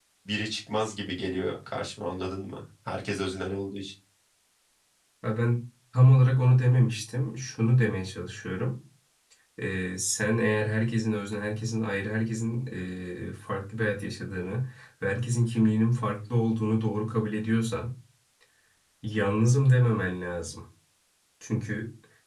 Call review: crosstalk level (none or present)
none